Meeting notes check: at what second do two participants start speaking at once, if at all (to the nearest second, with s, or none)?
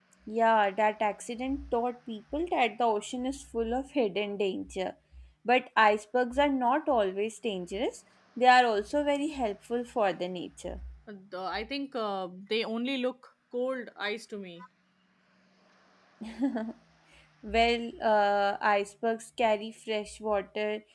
none